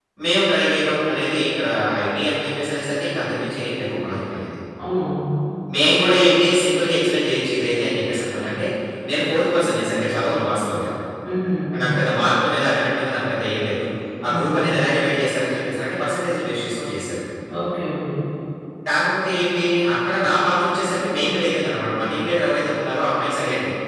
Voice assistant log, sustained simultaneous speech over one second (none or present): none